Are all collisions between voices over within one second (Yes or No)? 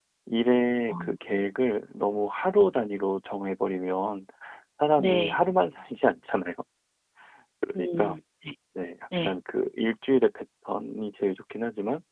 Yes